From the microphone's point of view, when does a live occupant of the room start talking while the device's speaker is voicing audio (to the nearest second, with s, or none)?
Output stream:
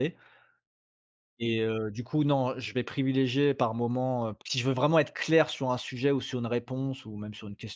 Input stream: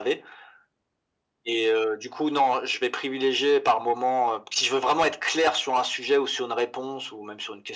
none